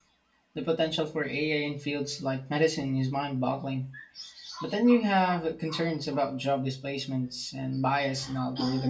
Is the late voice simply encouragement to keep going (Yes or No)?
No